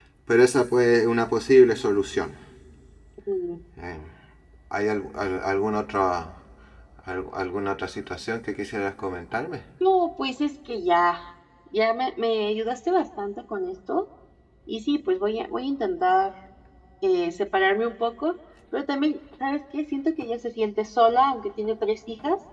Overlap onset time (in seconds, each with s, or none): none